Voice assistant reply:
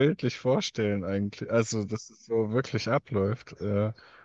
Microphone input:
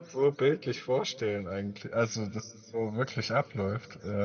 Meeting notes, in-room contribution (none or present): none